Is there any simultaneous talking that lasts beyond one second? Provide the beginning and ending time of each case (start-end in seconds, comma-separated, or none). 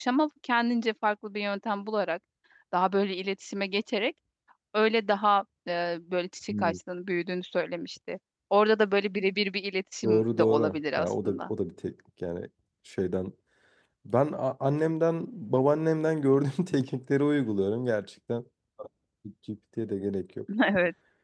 10.0-11.5